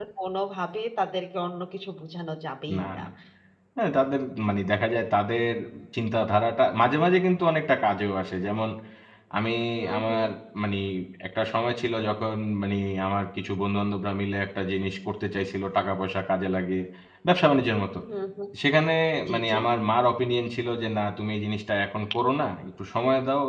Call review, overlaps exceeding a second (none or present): none